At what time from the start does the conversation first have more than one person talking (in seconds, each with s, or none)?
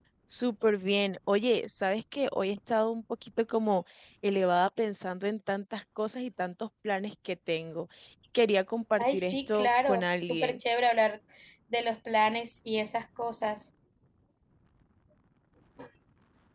9.0 s